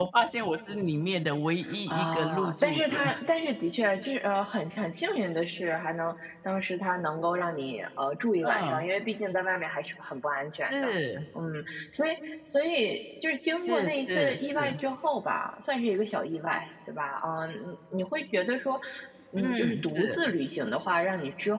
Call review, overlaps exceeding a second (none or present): present